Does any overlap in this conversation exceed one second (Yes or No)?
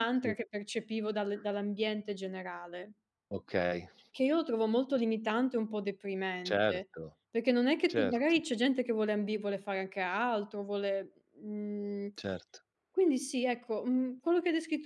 No